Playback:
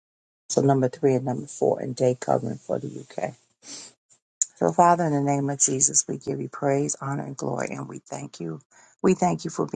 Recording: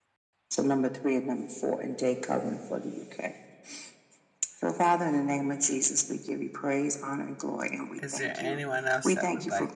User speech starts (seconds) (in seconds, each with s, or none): 8.0 s